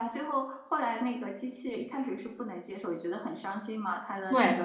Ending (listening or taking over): listening